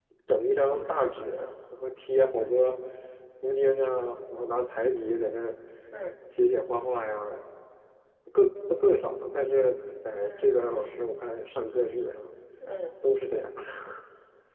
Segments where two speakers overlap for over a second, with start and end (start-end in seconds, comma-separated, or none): none